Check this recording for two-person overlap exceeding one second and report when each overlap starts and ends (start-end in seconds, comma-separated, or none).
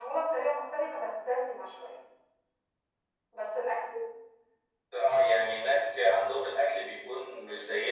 none